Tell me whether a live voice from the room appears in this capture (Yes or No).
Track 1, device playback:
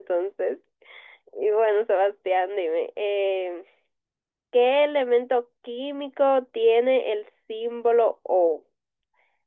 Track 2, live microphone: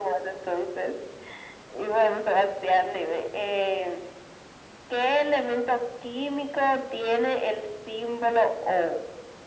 No